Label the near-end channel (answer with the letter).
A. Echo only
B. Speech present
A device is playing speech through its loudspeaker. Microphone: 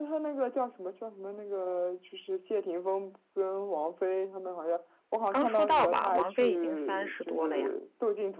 B